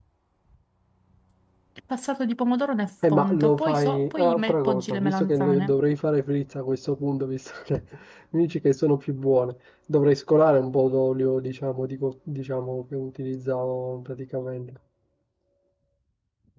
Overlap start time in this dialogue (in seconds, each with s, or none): 3.0 s